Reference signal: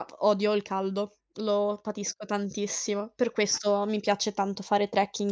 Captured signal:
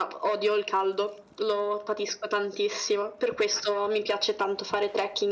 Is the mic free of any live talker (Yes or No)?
Yes